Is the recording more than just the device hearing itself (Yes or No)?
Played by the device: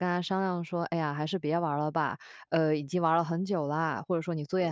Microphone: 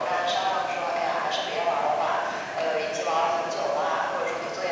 No